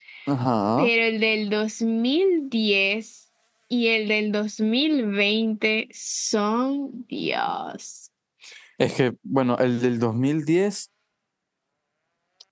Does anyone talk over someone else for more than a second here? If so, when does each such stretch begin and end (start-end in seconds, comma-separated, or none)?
none